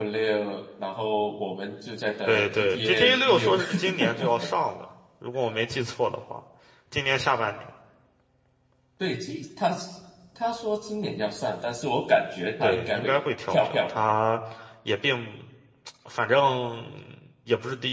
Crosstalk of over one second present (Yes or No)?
Yes